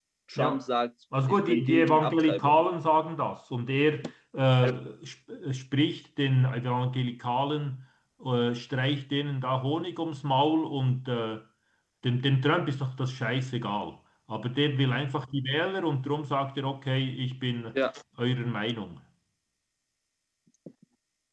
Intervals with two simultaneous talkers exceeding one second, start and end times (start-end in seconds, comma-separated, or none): 1.3-2.6